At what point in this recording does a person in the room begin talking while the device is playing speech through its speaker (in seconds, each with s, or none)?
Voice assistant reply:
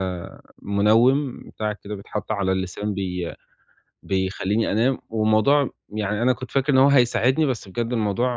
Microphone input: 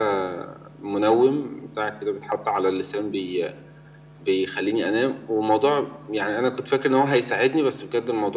none